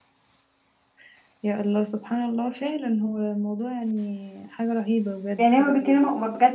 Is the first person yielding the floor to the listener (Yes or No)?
Yes